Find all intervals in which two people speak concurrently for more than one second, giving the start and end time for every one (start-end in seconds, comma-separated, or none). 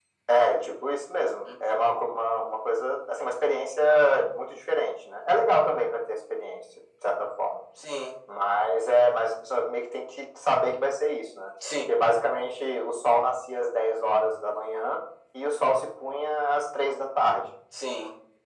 none